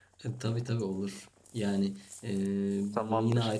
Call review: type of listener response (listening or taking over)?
listening